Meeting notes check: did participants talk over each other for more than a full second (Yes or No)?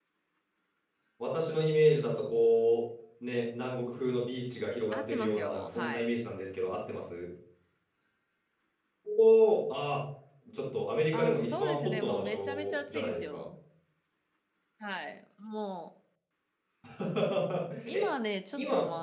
Yes